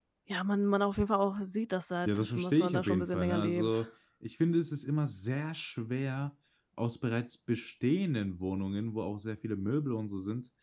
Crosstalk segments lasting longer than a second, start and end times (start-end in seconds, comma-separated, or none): 2.0-3.8